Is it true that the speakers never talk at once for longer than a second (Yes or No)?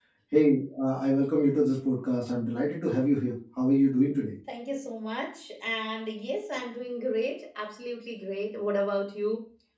Yes